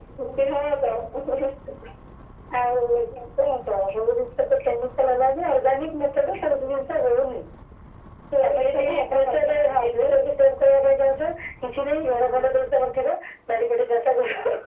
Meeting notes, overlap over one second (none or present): present